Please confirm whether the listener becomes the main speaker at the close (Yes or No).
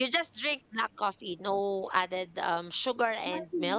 Yes